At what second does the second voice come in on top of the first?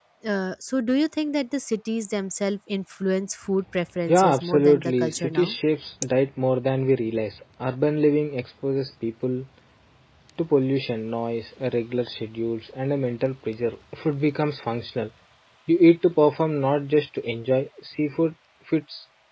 4.1 s

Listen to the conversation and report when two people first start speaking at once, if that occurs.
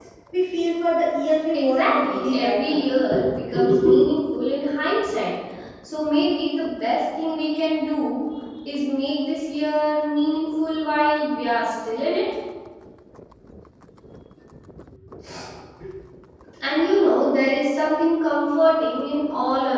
1.5 s

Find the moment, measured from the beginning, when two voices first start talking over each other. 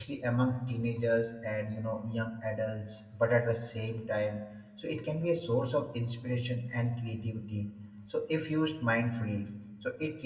none

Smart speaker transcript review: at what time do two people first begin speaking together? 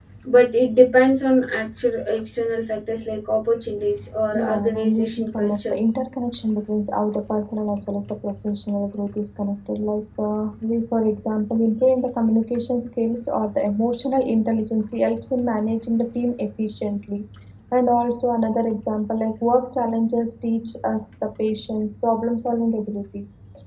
4.3 s

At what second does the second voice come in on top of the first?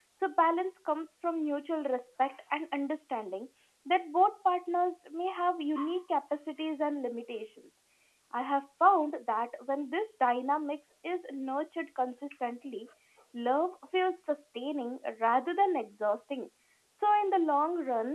none

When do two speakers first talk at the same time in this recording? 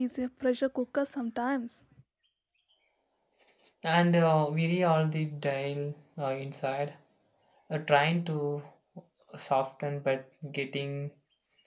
none

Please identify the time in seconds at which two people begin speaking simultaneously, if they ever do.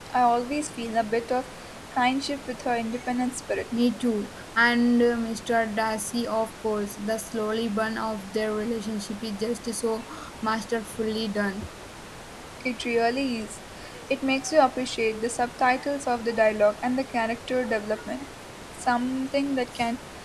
none

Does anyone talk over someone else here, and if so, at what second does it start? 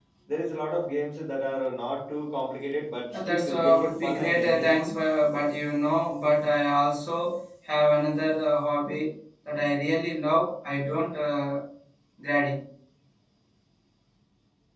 3.1 s

